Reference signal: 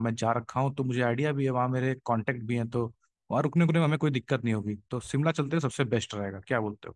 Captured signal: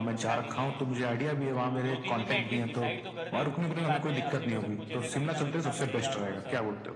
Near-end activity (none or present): present